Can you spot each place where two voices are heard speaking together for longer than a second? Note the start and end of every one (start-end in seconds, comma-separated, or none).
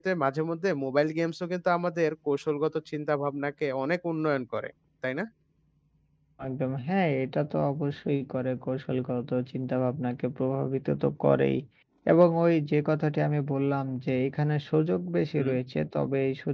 none